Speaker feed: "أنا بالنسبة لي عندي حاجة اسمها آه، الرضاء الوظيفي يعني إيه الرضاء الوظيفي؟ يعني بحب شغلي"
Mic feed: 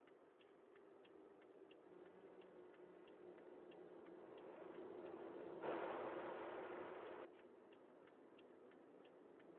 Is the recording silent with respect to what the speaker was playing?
Yes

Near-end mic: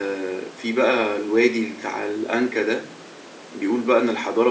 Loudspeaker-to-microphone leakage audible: No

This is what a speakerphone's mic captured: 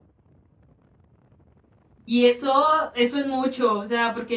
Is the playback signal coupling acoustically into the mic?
No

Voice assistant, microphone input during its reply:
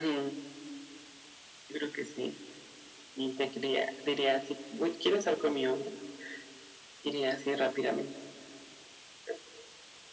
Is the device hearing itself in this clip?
Yes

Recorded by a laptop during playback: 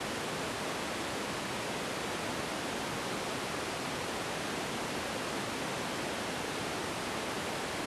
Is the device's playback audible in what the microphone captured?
No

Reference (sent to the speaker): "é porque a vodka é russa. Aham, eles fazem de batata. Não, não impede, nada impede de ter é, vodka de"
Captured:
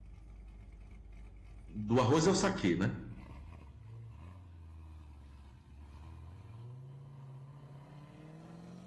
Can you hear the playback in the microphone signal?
No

